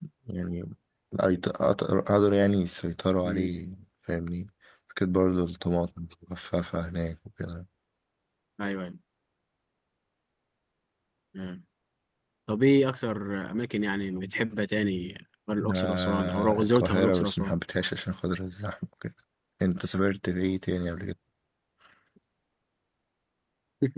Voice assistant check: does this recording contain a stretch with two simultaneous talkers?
Yes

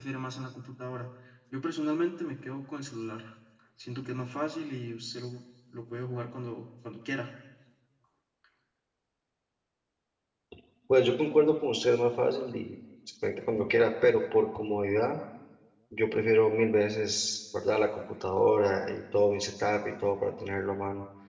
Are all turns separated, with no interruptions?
Yes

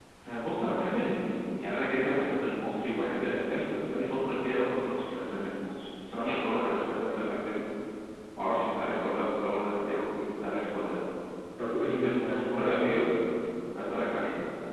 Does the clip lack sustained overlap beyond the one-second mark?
No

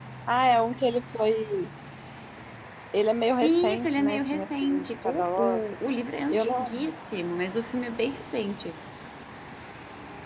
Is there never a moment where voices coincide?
No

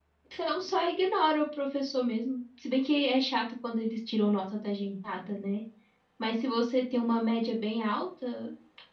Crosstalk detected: No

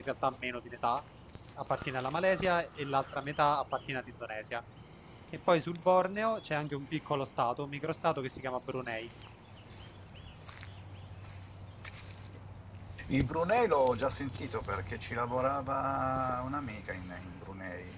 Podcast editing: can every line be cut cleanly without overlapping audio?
Yes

